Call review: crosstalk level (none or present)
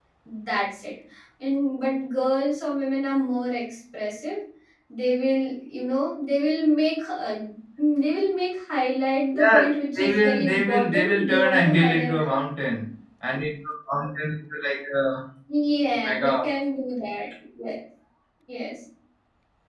present